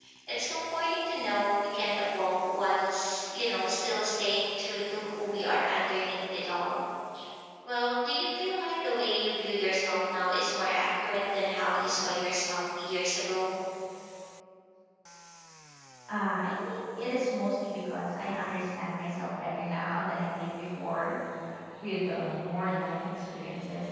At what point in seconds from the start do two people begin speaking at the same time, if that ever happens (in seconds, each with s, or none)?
none